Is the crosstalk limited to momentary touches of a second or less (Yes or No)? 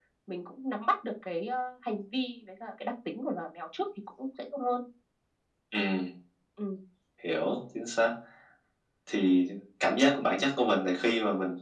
Yes